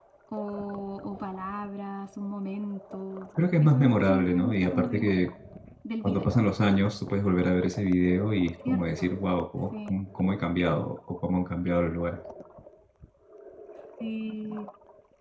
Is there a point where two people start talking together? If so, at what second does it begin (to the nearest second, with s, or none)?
4 s